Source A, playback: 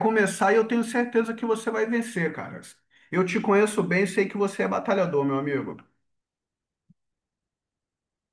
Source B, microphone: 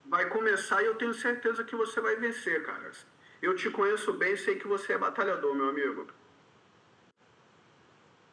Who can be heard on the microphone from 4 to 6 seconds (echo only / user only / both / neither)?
echo only